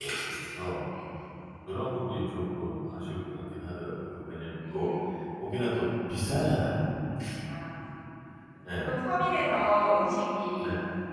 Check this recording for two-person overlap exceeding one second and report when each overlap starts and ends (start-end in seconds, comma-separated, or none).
none